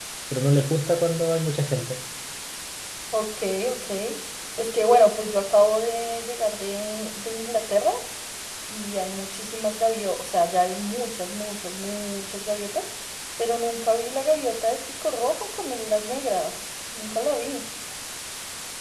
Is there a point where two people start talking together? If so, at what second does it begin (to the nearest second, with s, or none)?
none